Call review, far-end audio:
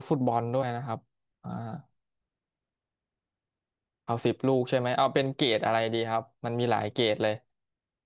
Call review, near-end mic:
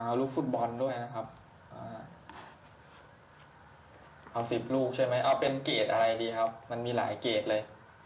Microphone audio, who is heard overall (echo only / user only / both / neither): echo only